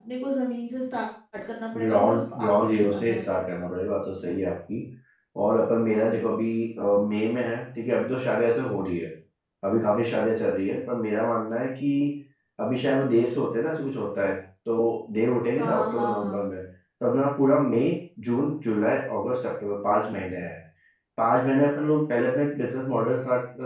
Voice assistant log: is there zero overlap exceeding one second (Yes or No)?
No